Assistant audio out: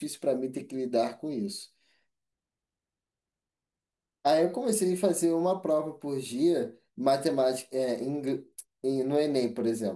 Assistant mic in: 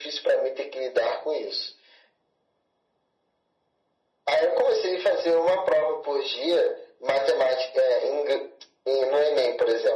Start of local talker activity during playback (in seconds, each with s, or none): none